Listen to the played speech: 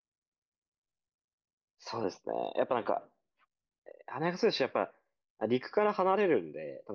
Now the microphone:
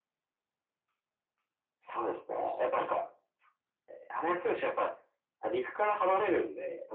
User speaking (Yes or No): No